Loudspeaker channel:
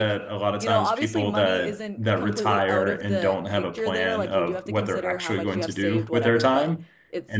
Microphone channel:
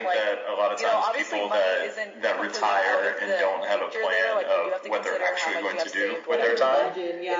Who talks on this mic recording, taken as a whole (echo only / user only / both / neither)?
both